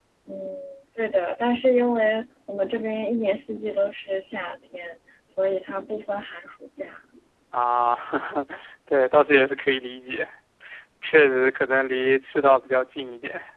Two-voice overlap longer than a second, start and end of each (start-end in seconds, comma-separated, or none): none